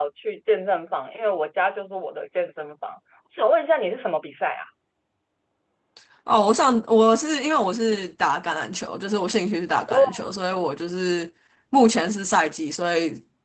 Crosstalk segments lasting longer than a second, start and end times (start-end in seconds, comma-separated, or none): none